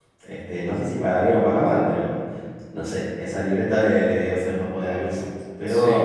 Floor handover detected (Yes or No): Yes